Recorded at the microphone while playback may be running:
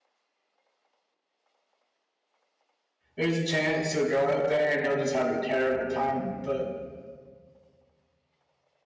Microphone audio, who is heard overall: user only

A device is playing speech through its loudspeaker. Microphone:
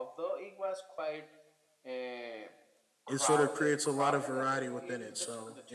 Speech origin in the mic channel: both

